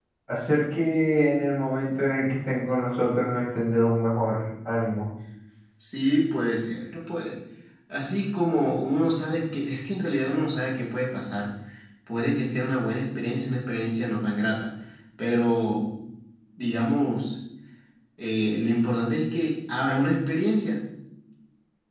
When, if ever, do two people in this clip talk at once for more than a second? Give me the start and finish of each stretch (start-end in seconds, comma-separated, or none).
none